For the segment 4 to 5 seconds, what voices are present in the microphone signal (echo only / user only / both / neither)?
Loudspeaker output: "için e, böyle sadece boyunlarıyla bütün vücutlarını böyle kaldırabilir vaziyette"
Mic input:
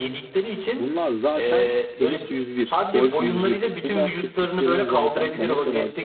both